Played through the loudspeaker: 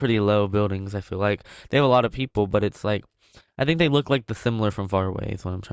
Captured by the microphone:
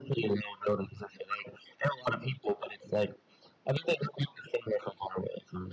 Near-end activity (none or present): none